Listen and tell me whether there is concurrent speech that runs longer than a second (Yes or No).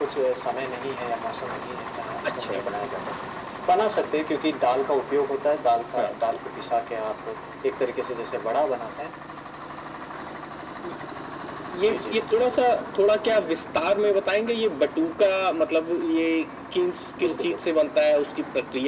No